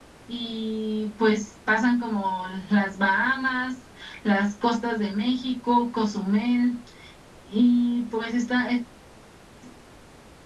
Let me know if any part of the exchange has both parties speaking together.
No

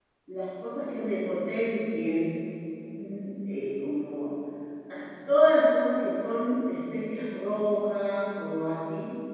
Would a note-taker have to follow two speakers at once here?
No

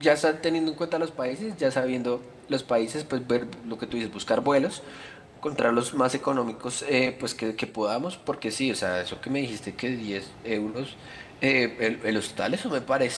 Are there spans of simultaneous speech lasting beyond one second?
No

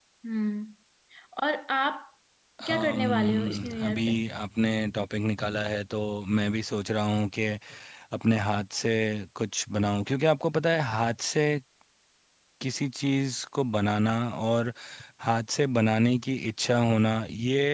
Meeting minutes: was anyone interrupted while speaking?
Yes, from 2.7 s

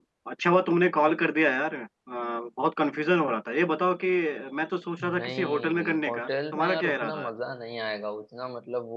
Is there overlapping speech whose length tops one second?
Yes, from 5.0 s

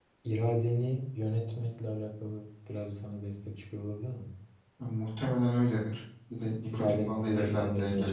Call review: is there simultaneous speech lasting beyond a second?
Yes, from 6.7 s

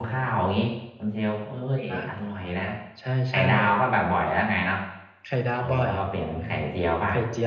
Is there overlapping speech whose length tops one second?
No

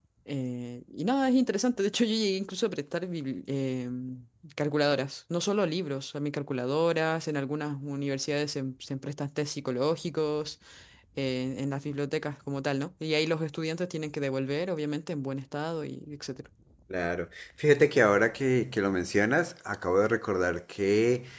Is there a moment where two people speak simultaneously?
No

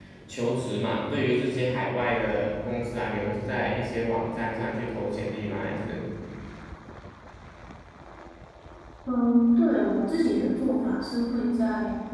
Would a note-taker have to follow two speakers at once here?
No

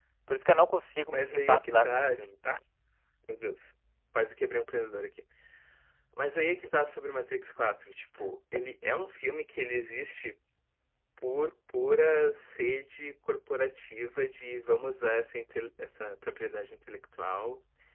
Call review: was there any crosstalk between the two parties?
Yes, from 1.1 s

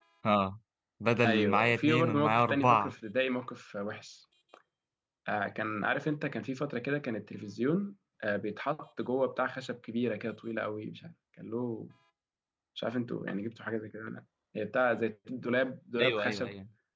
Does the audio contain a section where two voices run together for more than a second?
Yes, from 1.2 s

